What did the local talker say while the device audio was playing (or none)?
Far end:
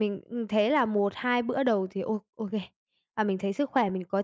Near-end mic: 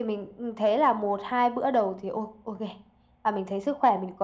none